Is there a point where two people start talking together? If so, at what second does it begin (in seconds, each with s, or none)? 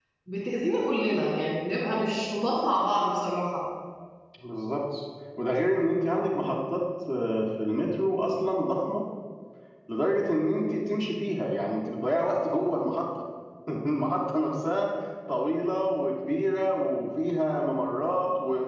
none